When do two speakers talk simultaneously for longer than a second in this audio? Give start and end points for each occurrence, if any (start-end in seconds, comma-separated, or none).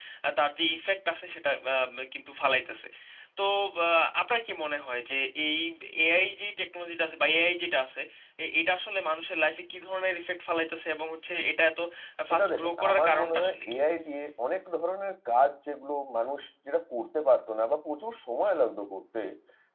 12.3-13.8